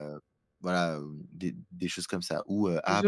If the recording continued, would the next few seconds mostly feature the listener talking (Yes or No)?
No